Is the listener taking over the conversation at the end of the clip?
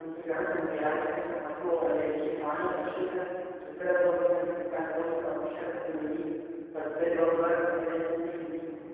No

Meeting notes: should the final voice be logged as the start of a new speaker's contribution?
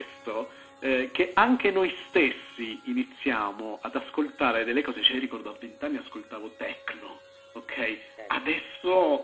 No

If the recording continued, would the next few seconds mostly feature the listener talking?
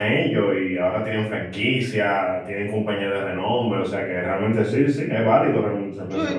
Yes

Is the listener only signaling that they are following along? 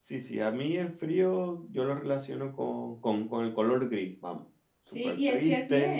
No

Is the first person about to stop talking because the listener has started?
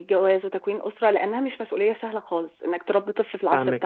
Yes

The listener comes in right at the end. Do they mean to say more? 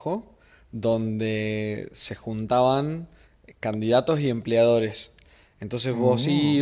No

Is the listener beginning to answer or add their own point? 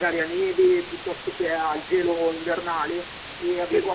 No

